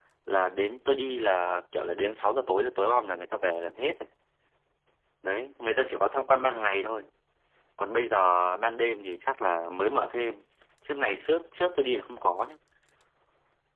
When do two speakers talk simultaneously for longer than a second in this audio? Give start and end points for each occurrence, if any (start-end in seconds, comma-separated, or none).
none